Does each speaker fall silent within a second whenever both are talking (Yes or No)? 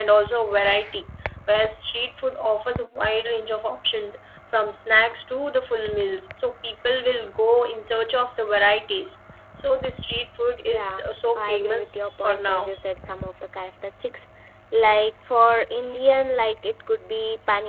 No